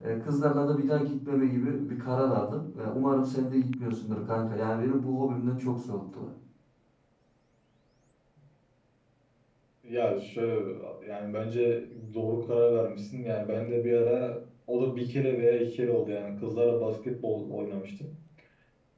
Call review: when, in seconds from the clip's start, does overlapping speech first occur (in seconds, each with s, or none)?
none